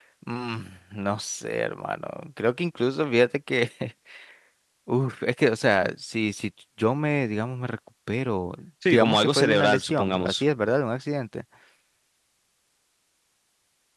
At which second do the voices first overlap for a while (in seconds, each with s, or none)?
8.9 s